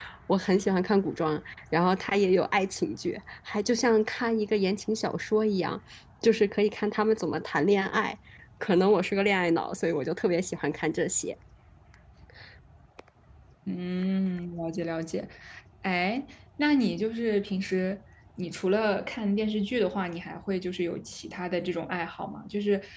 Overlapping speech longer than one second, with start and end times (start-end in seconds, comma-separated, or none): none